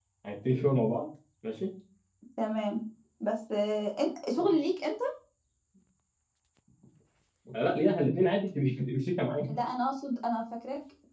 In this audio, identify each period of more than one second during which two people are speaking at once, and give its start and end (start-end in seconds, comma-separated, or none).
none